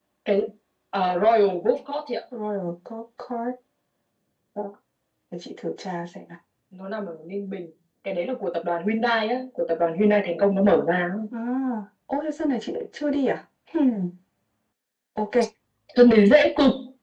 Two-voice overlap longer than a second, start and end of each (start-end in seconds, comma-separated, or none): none